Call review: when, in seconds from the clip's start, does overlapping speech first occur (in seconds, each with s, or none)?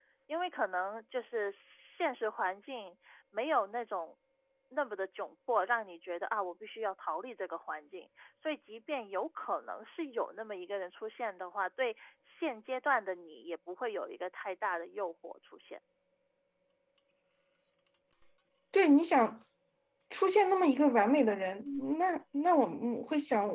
none